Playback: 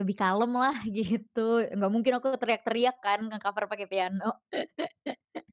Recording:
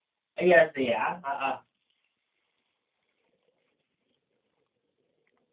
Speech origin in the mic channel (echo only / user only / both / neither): user only